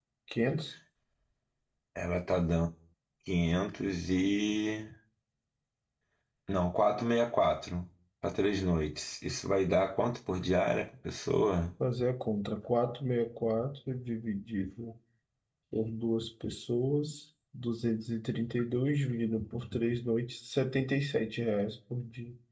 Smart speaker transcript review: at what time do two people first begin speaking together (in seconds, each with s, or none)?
none